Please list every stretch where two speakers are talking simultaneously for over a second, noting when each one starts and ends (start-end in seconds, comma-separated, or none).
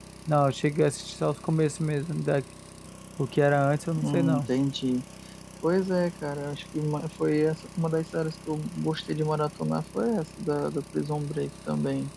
none